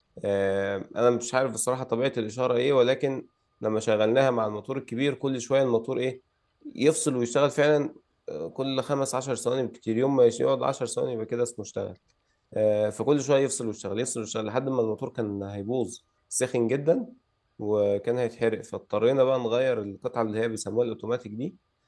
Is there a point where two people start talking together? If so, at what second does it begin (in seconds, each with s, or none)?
none